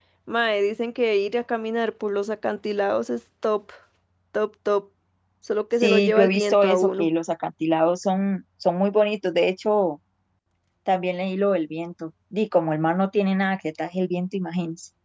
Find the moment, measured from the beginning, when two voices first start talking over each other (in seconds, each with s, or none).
5.8 s